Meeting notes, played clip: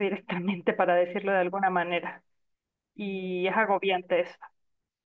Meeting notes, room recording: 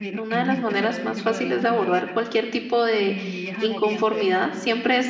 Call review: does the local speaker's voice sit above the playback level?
Yes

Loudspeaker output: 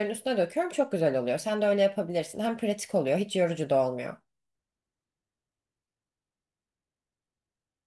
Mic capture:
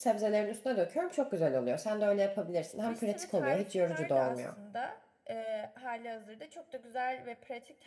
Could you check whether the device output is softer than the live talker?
No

